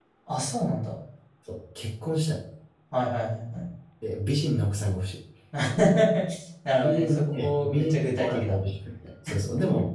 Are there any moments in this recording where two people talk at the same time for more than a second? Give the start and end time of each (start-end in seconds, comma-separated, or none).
6.8-8.6